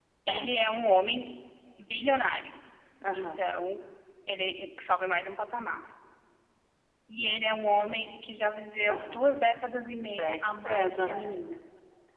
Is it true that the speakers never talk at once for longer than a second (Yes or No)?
No